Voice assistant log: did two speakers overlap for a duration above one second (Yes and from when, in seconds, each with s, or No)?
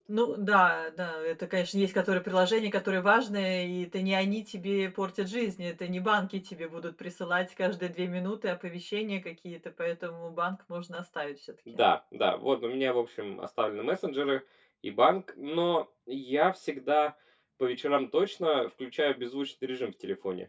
No